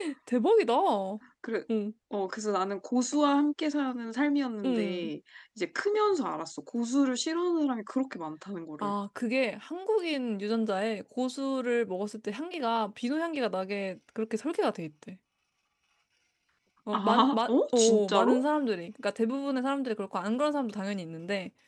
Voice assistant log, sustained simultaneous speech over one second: present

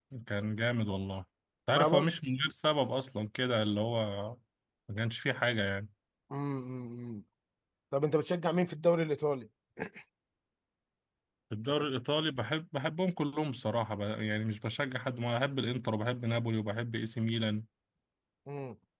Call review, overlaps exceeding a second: none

